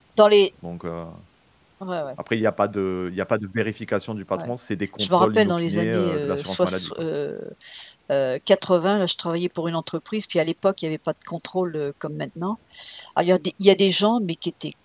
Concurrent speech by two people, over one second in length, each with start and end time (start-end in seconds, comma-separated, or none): 5.0-6.9